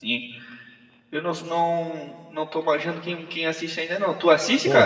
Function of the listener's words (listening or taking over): taking over